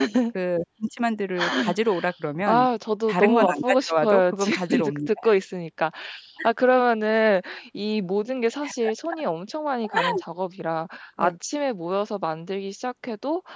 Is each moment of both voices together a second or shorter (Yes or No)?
No